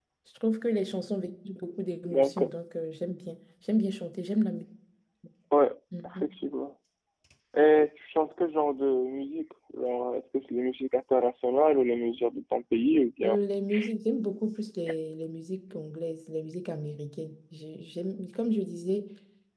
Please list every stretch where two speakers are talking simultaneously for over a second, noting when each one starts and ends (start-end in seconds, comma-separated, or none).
none